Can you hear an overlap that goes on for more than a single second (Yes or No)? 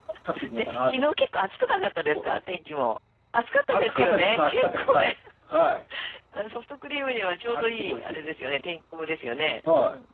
Yes